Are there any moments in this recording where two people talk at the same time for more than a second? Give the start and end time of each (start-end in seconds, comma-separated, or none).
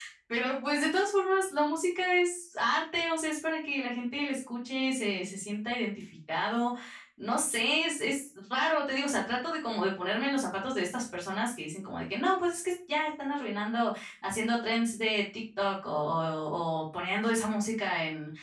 none